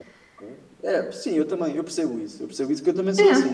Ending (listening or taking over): listening